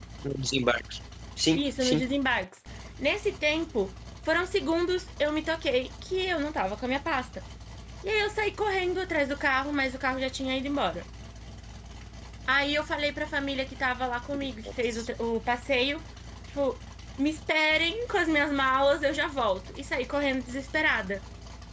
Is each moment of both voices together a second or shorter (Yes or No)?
Yes